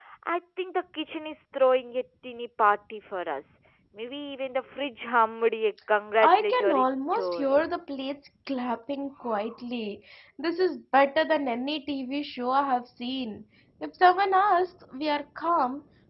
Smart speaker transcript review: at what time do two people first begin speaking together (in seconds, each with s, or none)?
6.2 s